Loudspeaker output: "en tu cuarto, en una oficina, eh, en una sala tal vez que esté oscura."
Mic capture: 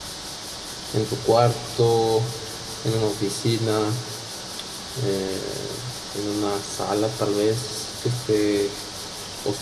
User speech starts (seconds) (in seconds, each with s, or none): none